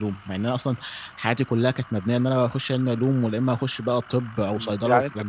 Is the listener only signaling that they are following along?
No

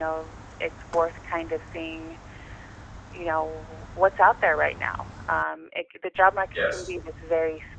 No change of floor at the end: Yes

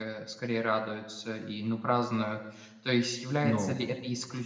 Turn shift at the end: No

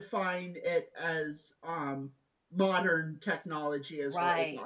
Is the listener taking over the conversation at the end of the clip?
Yes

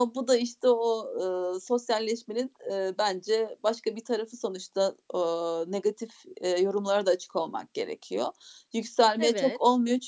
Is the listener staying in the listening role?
Yes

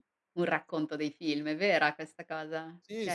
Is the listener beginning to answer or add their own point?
Yes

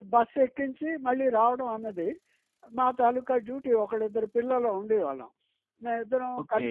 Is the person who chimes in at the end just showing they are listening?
No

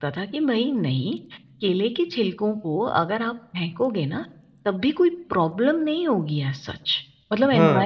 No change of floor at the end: No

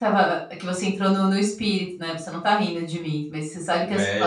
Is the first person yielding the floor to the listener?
Yes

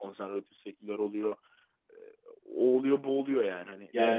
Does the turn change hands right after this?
Yes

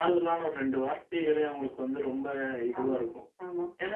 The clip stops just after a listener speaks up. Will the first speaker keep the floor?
Yes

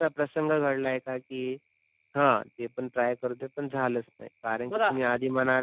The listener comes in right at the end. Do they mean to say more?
No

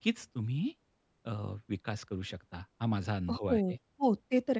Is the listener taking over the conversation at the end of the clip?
Yes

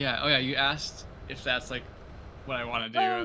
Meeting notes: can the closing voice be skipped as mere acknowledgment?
No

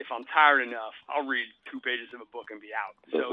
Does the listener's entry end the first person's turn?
No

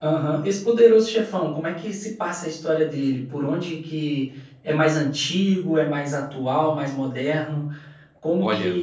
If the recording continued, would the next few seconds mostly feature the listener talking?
No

